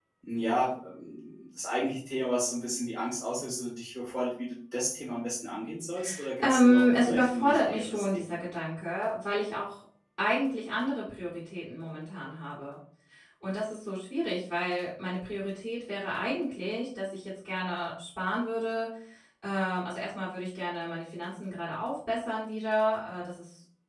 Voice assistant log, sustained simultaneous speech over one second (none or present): present